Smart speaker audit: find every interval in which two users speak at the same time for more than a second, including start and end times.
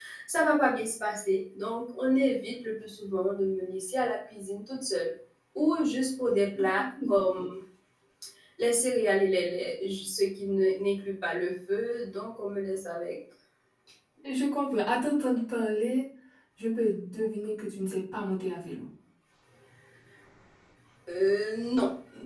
none

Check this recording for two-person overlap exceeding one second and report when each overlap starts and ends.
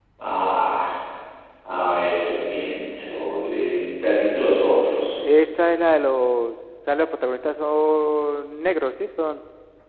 none

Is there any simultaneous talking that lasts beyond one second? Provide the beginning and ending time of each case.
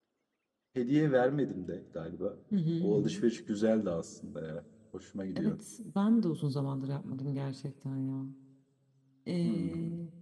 none

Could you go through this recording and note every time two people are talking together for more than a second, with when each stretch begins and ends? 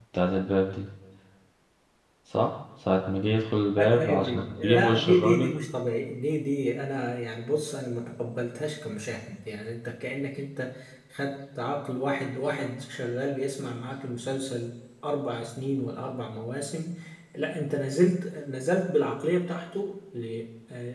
3.8-5.5

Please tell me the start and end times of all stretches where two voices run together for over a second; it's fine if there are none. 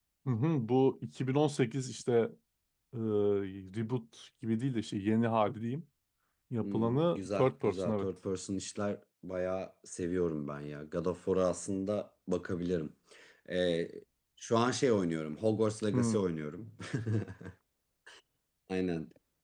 6.6-8.1

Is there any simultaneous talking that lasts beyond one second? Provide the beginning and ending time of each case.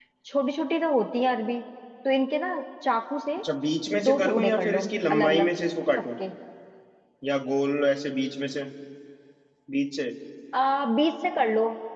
4.0-5.5

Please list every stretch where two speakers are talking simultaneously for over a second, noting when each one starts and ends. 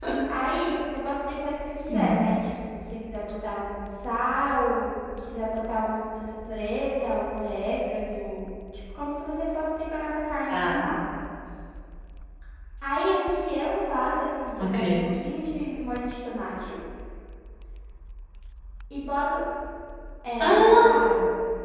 none

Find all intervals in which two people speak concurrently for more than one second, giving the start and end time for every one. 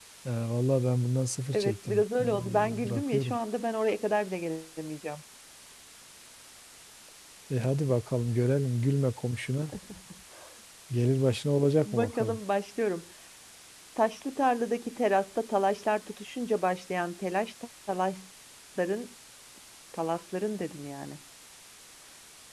1.5-3.4

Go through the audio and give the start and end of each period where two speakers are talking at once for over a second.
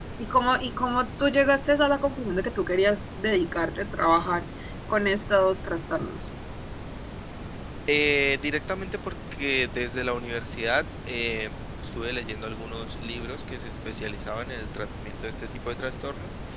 none

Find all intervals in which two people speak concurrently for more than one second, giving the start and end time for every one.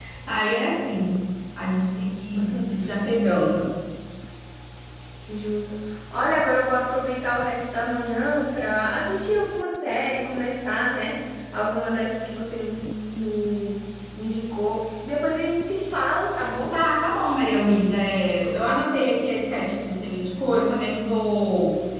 none

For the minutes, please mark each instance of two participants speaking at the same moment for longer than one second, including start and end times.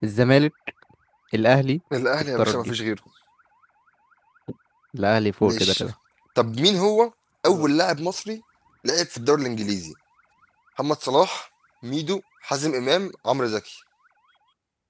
none

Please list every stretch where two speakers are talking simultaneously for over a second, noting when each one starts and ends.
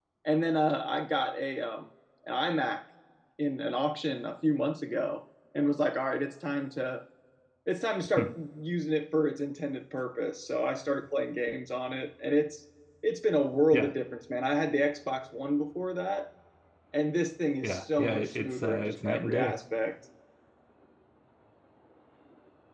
17.6-19.6

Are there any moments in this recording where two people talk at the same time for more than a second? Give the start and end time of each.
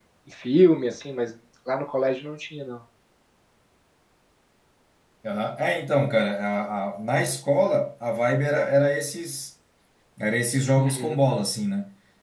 none

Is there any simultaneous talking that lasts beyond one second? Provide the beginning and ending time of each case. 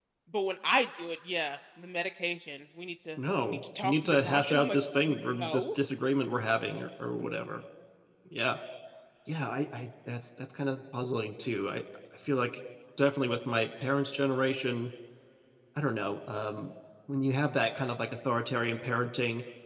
3.4-5.6

